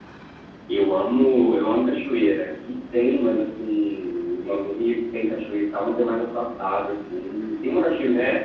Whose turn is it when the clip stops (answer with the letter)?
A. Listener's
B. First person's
B